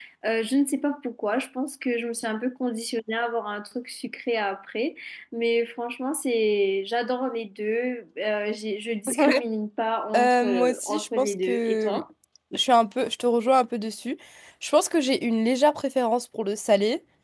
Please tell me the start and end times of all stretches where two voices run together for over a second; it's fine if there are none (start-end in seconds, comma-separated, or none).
10.2-12.0